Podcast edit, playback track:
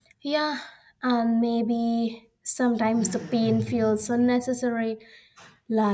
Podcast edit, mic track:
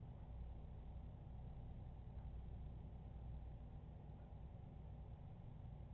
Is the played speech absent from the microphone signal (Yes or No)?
Yes